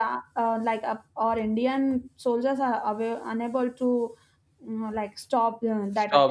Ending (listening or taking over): taking over